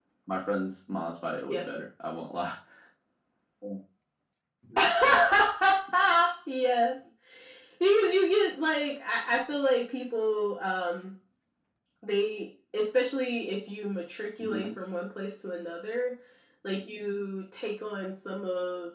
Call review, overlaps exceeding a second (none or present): none